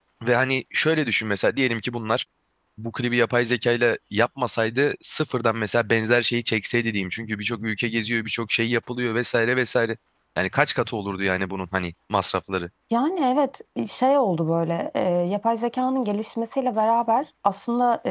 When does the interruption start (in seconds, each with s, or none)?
none